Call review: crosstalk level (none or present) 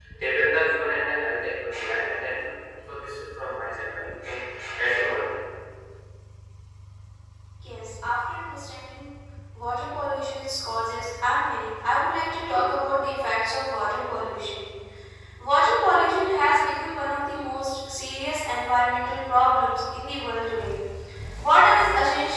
none